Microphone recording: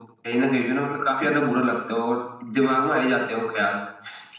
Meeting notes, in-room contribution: none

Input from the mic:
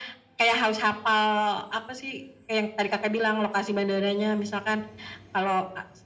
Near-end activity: none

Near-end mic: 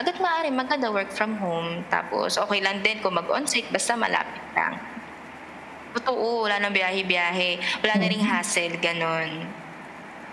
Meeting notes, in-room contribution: present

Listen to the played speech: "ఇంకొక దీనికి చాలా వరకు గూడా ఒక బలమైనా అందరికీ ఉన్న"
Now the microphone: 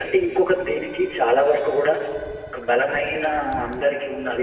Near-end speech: none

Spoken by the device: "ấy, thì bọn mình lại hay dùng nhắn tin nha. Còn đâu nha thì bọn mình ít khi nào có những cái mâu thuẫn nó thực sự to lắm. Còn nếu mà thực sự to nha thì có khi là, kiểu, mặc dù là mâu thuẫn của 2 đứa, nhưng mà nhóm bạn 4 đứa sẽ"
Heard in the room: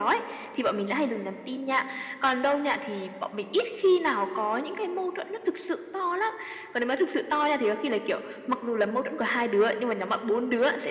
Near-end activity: none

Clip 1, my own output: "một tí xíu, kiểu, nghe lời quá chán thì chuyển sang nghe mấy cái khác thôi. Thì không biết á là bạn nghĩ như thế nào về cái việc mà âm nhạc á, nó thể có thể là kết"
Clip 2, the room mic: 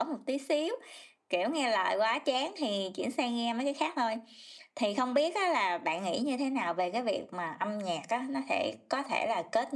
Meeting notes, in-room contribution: none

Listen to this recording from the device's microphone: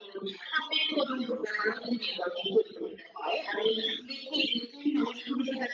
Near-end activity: none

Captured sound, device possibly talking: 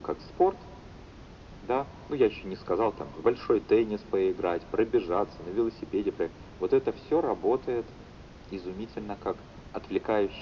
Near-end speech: none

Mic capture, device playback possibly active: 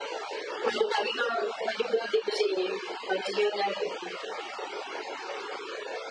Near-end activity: none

